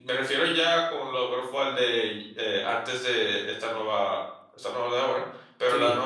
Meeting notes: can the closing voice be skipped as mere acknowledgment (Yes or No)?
Yes